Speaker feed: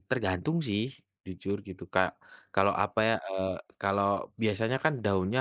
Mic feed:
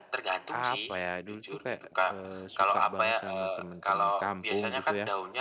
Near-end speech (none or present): present